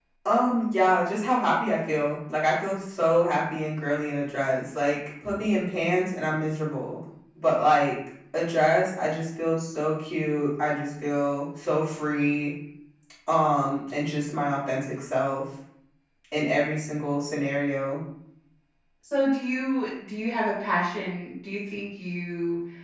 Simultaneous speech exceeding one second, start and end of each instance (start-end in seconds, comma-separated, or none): none